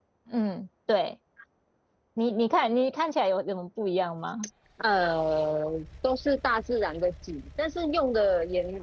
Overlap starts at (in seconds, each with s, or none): none